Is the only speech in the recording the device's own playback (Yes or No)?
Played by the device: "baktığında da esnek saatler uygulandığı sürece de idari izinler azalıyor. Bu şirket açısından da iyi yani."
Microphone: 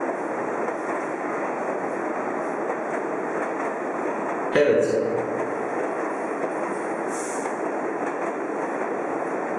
No